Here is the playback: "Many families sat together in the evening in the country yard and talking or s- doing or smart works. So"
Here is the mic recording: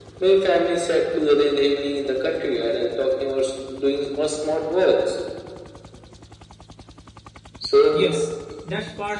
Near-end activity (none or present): present